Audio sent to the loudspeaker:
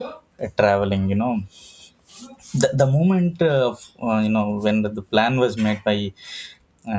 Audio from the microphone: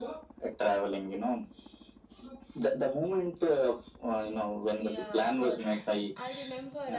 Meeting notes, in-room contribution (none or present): present